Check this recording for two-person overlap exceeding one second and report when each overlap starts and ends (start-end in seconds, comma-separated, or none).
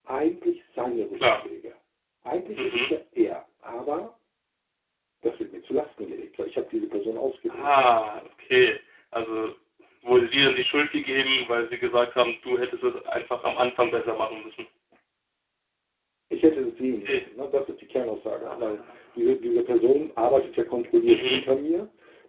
none